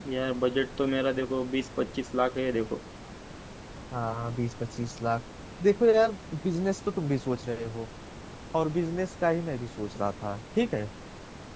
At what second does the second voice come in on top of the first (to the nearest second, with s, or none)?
none